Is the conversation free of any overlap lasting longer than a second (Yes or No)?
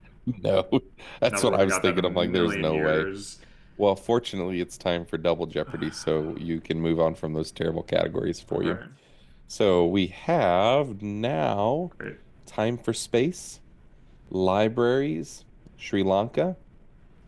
No